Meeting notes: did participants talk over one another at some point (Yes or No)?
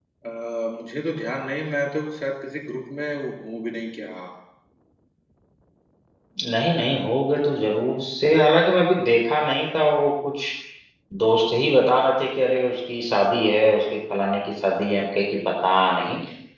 No